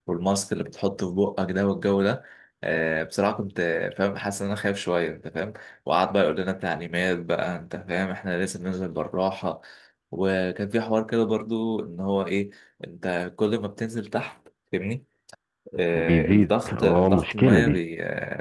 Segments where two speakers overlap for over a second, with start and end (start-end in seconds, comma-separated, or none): 15.9-17.8